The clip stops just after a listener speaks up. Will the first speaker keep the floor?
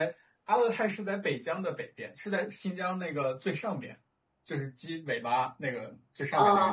Yes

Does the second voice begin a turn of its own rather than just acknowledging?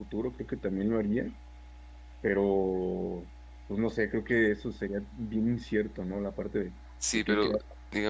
Yes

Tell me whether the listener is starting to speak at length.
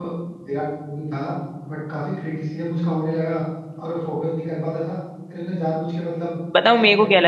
Yes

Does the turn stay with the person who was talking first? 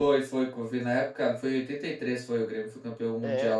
No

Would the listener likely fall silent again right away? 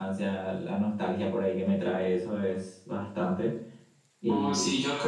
No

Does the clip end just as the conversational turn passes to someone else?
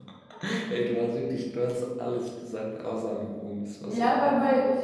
Yes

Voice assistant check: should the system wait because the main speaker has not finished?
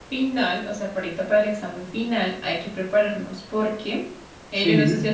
Yes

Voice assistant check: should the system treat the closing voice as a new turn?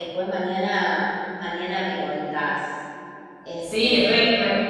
Yes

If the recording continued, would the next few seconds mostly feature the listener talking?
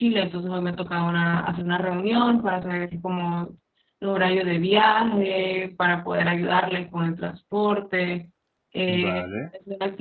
No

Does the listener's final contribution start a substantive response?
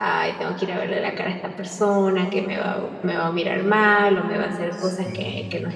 No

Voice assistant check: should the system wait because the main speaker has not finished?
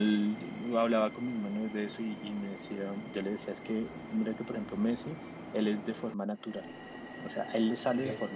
Yes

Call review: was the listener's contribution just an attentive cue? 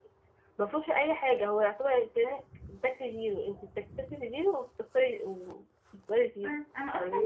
No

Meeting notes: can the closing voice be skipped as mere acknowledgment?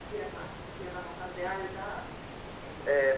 No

